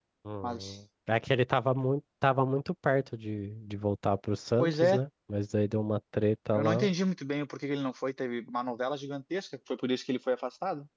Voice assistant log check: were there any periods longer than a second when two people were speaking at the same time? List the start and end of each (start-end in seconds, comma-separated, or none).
none